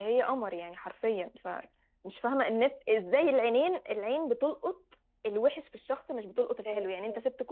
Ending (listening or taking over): listening